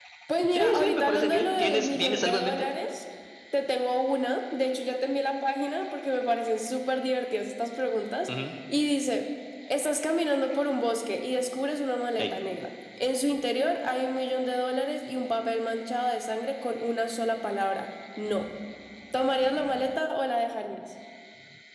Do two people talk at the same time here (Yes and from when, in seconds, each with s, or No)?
Yes, from 0.5 s